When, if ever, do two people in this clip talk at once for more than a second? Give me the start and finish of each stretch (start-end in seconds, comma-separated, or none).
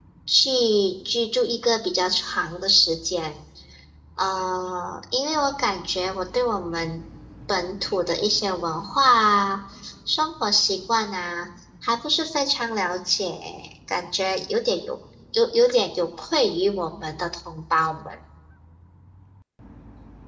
none